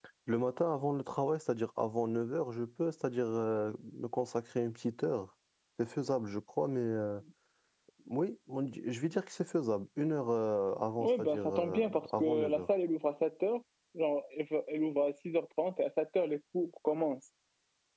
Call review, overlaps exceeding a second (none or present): present